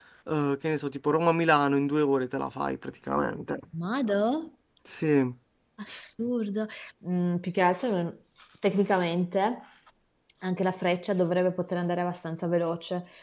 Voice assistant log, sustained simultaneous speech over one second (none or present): none